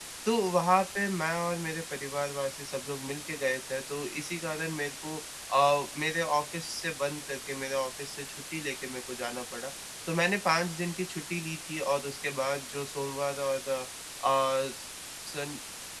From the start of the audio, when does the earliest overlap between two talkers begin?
none

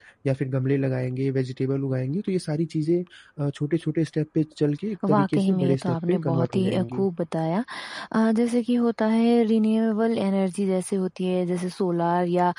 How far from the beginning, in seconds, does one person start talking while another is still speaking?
5.0 s

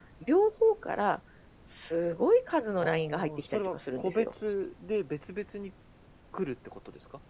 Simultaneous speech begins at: 2.8 s

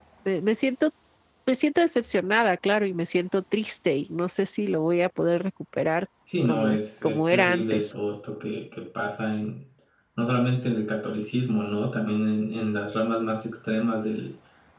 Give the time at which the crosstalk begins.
6.5 s

